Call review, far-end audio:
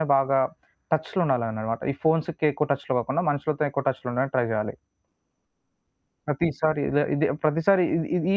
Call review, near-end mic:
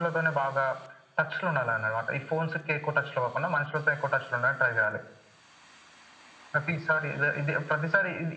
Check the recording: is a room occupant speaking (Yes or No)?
No